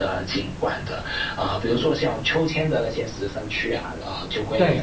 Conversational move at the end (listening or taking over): listening